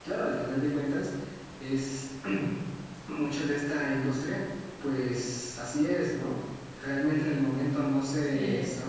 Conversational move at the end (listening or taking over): listening